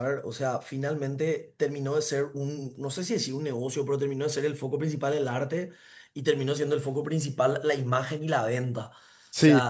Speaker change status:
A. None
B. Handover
A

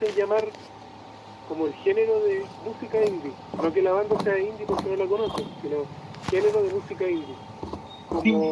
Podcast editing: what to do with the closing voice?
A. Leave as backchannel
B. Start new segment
A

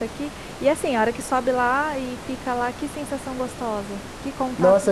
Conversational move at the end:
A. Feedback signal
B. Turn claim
B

